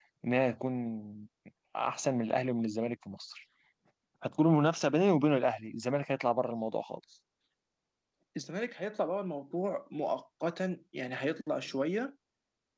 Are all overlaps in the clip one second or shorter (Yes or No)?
Yes